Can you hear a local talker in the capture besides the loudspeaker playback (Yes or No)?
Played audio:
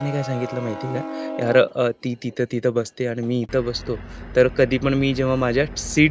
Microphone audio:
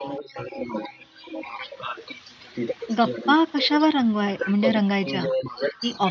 Yes